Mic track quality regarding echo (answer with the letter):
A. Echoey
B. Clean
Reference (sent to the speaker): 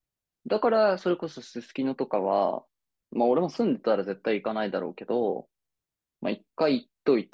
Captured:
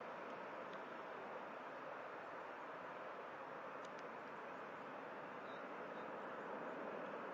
B